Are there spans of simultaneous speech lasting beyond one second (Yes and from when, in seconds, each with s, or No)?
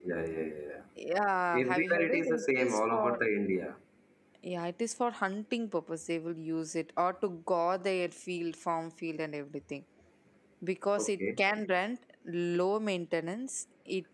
Yes, from 1.6 s